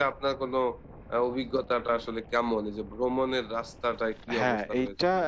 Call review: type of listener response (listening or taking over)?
taking over